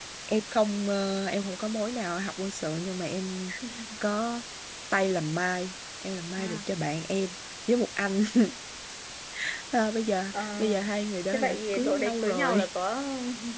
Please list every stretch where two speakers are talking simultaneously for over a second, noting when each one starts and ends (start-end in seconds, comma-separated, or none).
11.3-12.6